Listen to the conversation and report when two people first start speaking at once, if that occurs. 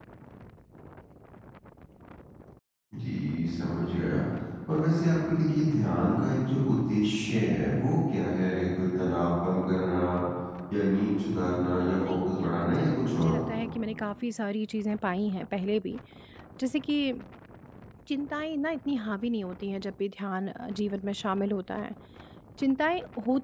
12 s

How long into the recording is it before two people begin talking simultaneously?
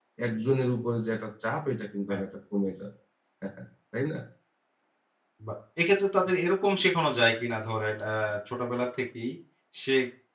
none

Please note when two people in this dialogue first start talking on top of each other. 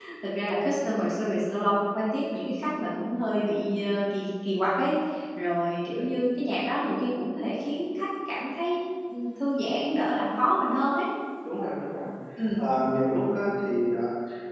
none

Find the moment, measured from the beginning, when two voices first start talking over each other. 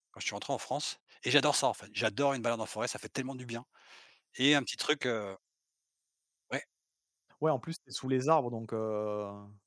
none

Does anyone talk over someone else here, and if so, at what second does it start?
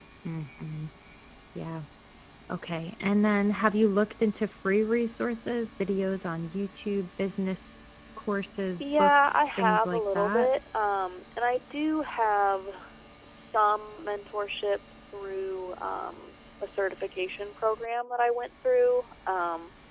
9 s

